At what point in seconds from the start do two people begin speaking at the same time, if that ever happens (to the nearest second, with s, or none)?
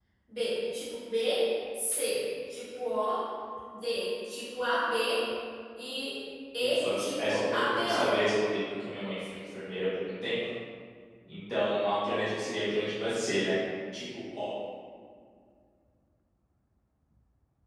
7 s